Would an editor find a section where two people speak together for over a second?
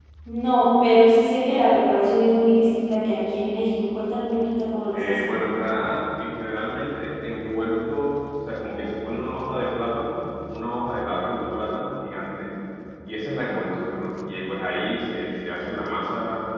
No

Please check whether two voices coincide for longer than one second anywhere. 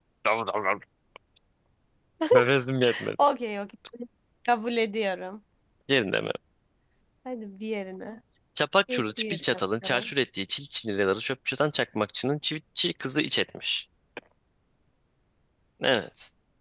Yes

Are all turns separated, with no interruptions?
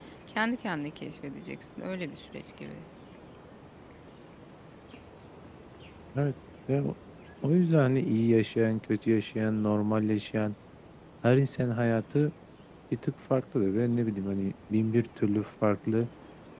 Yes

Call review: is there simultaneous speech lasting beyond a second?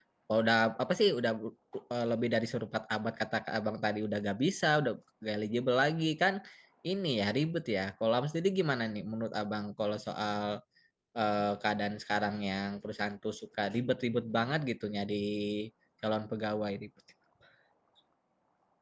No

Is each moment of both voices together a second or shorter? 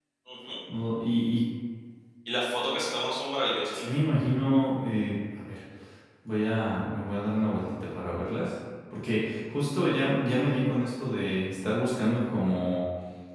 Yes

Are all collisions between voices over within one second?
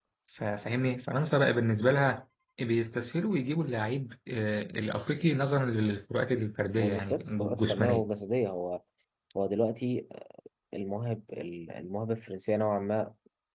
No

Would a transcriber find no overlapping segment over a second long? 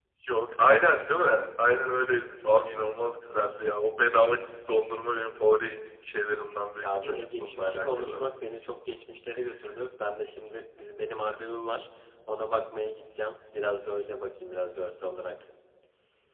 No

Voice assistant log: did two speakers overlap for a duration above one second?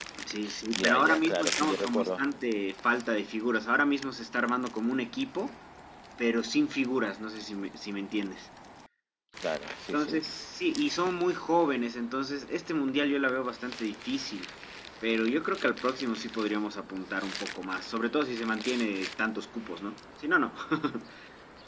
Yes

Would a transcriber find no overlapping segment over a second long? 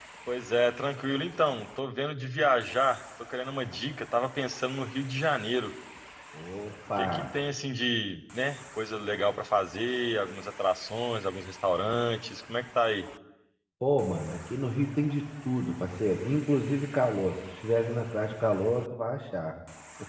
Yes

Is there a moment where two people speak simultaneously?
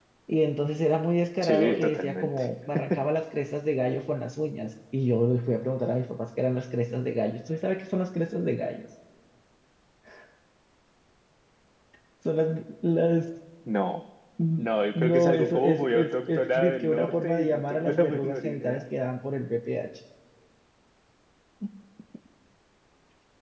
Yes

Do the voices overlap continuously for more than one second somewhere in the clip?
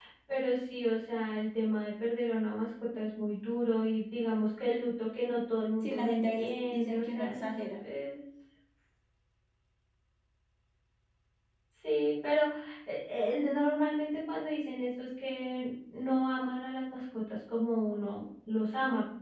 Yes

